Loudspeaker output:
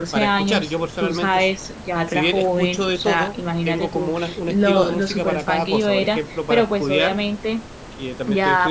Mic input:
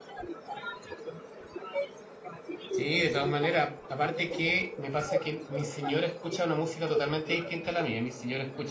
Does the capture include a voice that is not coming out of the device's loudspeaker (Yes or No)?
Yes